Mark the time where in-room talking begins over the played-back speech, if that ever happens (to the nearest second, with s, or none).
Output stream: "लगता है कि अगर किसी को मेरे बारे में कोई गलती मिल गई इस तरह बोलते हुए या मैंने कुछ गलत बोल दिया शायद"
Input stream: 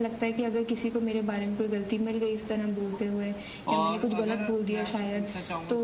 4 s